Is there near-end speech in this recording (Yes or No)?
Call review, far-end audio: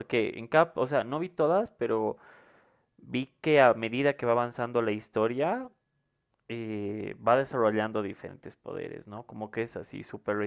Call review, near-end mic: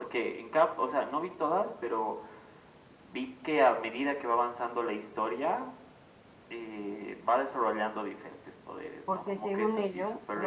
Yes